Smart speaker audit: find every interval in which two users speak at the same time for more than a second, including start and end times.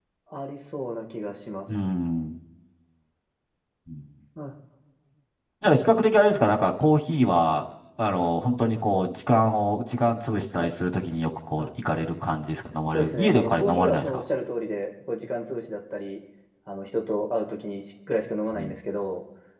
12.9-14.2

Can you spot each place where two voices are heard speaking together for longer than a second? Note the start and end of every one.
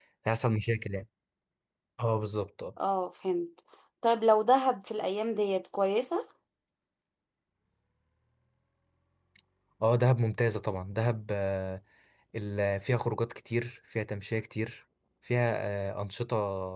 none

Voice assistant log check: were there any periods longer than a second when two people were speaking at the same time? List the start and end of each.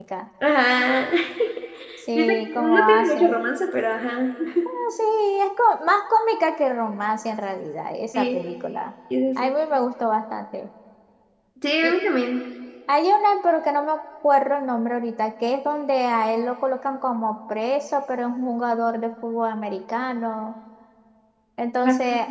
2.2-3.4

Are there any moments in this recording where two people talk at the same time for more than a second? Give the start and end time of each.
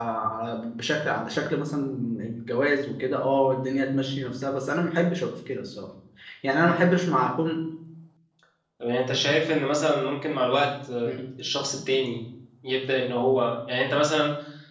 none

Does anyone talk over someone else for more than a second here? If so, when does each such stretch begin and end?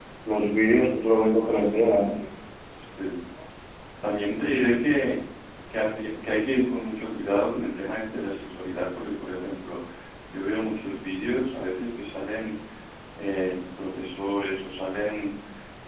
none

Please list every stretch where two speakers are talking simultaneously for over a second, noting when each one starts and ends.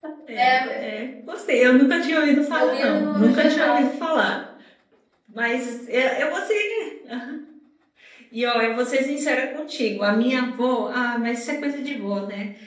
2.5-3.9

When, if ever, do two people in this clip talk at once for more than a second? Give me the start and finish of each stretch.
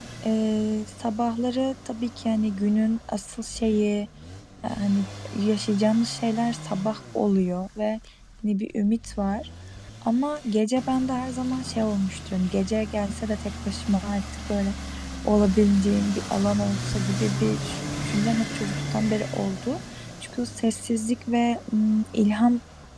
none

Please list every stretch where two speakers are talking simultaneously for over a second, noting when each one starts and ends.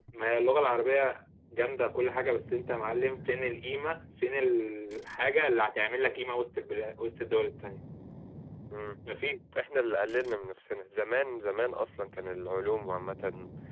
none

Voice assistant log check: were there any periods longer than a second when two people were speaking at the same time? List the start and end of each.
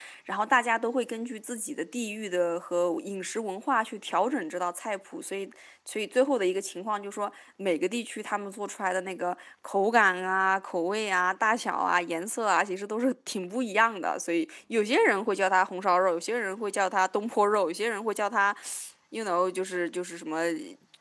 none

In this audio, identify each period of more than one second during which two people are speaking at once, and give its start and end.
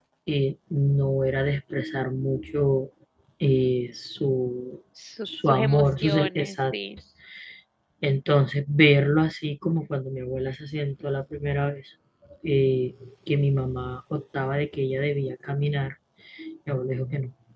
5.2-6.7

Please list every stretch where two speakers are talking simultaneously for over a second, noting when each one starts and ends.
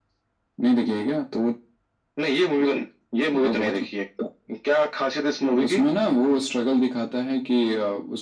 none

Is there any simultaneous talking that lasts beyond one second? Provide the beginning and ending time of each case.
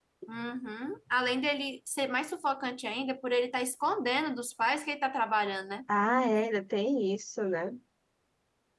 none

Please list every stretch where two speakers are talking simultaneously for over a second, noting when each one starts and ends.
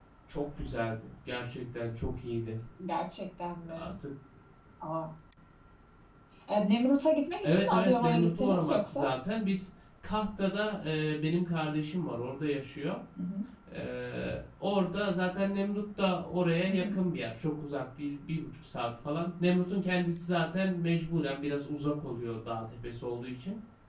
7.4-9.1

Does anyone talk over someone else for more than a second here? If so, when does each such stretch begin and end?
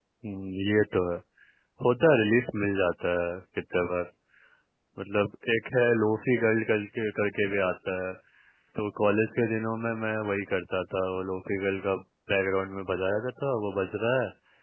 none

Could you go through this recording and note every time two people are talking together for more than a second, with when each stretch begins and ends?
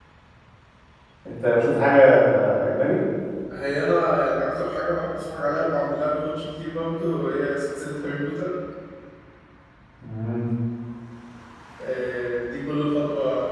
none

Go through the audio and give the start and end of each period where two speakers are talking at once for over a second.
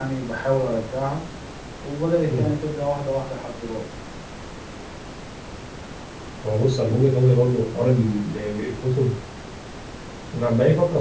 none

